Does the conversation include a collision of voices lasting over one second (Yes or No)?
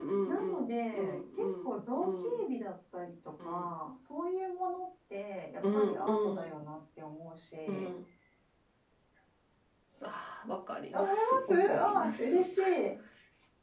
Yes